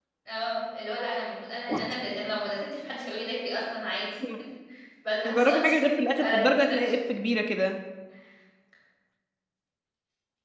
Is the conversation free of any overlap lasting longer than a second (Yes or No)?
No